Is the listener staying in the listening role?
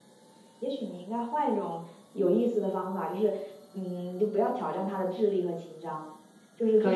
Yes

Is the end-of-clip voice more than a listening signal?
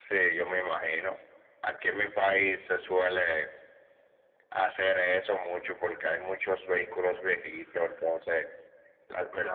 No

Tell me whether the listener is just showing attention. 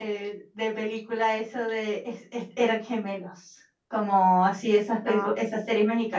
Yes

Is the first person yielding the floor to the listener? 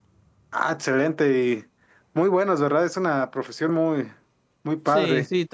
Yes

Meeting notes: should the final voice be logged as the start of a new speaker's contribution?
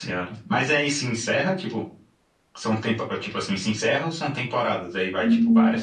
Yes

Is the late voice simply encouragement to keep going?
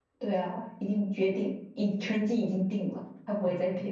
No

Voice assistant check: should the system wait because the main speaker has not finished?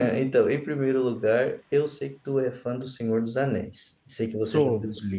Yes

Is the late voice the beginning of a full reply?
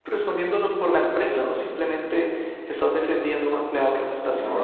Yes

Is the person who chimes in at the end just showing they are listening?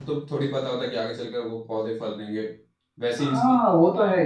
No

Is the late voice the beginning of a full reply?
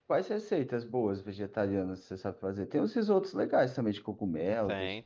Yes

